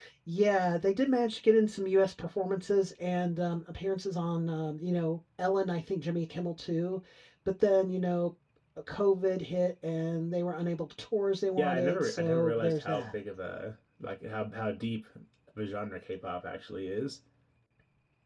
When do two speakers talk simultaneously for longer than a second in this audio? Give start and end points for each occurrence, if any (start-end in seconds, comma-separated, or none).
11.6-13.1